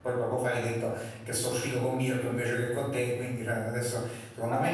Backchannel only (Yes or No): No